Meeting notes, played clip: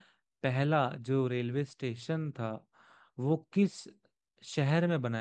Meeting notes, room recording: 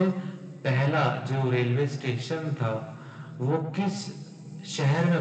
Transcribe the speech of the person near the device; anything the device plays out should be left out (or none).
none